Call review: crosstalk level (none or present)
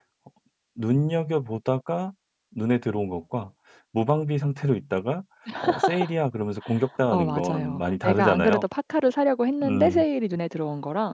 present